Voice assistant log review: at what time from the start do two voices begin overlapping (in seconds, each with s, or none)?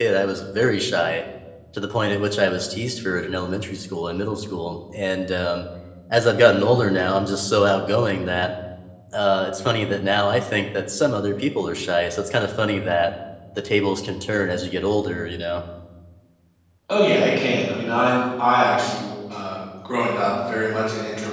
none